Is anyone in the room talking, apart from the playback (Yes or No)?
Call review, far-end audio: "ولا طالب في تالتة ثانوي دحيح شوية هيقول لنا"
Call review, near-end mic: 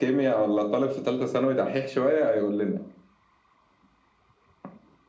No